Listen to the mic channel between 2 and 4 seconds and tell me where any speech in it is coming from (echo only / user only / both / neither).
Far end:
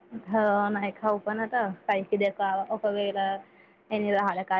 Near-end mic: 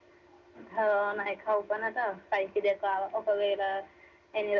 echo only